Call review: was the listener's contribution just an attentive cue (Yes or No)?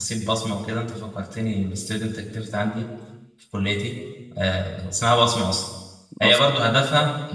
Yes